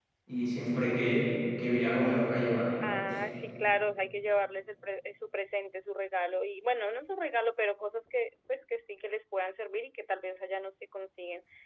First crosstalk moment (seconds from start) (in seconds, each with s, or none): none